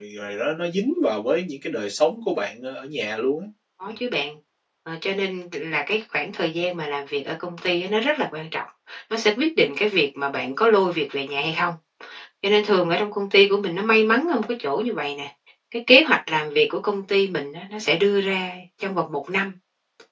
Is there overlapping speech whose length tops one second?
No

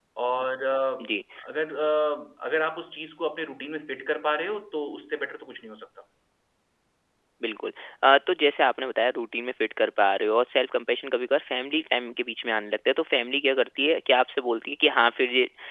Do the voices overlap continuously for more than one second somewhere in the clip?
No

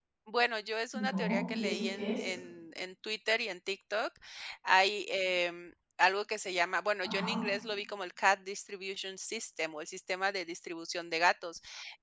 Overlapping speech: Yes, from 0.9 s

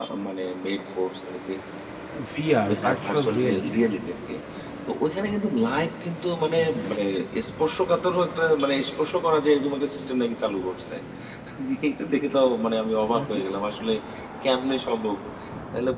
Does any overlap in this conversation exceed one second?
Yes, from 2.5 s

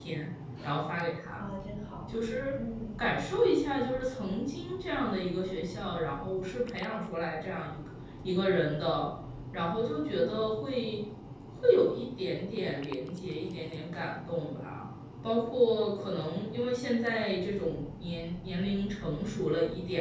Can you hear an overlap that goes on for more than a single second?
No

